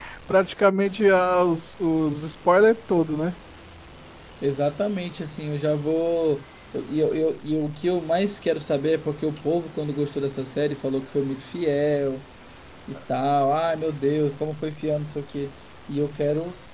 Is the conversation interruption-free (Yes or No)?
Yes